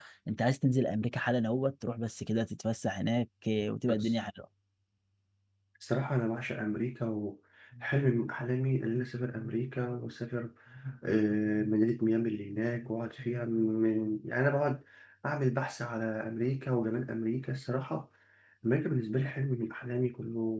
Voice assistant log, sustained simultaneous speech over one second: none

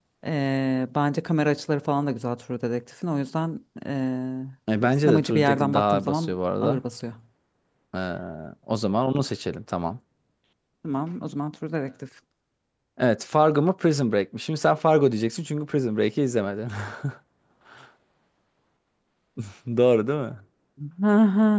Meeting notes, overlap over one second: present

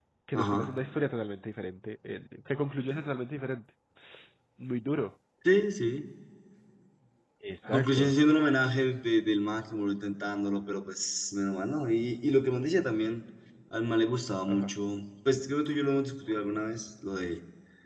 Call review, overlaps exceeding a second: none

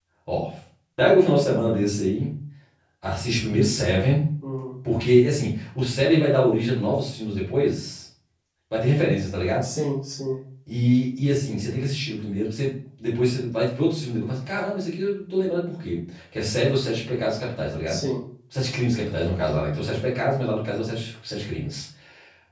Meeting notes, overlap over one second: none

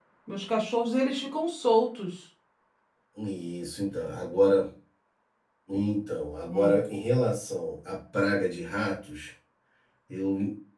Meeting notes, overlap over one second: none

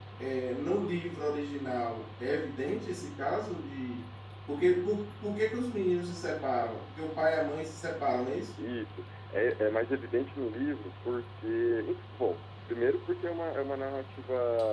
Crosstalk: none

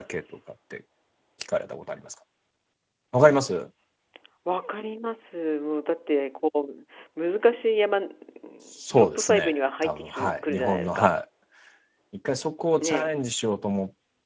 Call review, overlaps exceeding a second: present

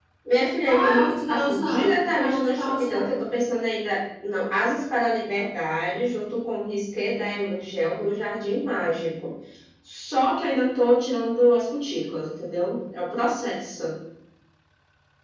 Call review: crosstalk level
present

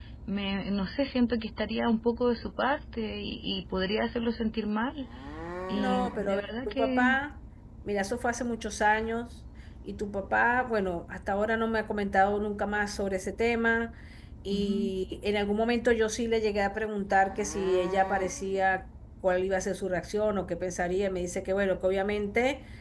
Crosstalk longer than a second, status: present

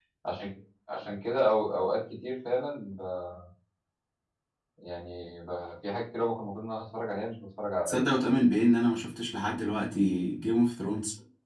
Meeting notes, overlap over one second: none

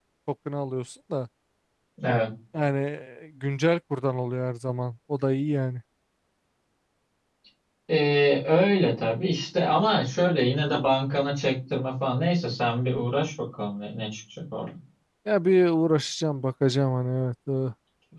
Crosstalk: none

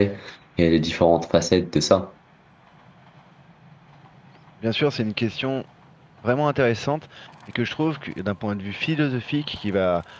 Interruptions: none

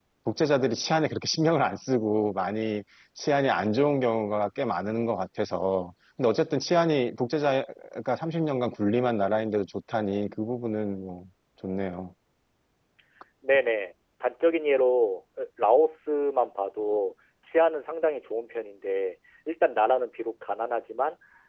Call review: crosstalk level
none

